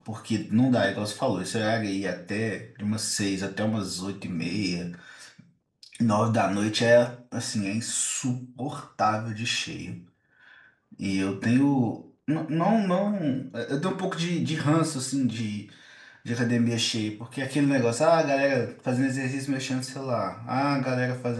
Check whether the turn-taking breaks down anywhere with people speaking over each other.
No

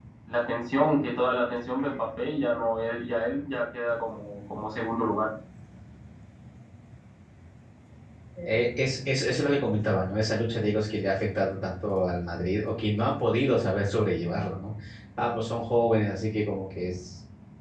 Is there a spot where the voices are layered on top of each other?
No

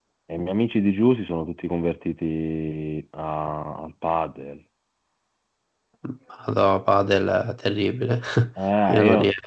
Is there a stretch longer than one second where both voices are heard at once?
No

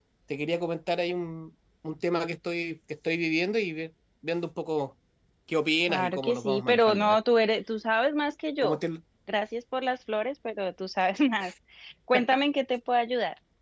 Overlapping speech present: Yes, from 5.9 s

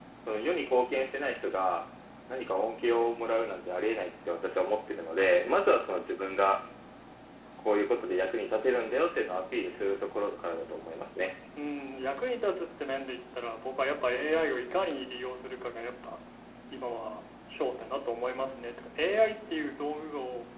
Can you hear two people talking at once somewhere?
No

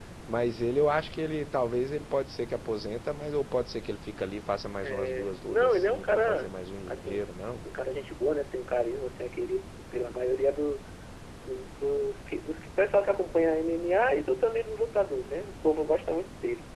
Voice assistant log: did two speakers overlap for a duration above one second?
Yes, from 4.8 s

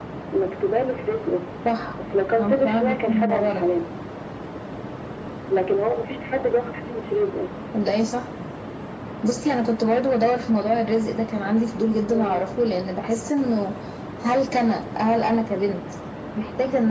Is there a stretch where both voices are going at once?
Yes, from 2.4 s

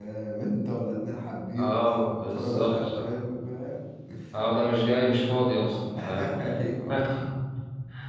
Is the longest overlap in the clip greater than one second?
Yes, from 1.6 s

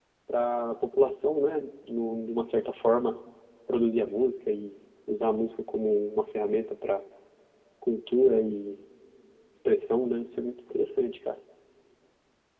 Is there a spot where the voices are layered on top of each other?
No

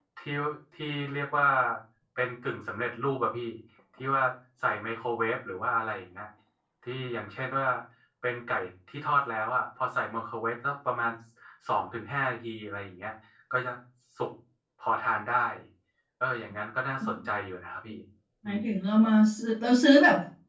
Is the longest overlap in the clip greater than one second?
No

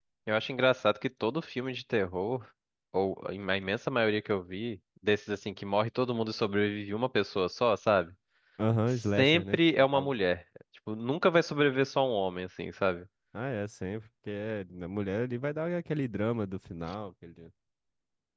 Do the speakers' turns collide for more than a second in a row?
Yes, from 8.9 s

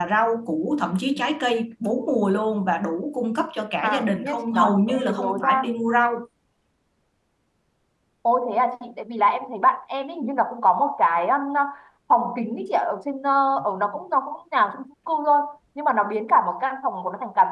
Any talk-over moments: Yes, from 3.8 s

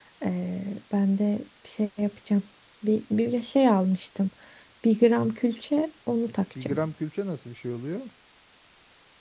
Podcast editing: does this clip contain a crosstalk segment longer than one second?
No

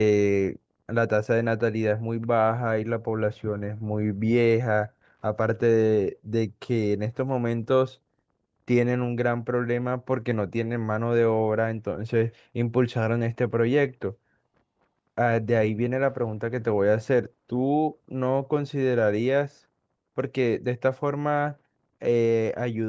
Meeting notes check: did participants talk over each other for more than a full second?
No

